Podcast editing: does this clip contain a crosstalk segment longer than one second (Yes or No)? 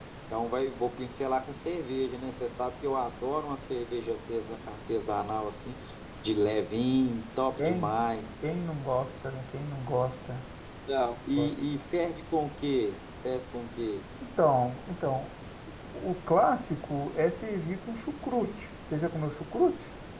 No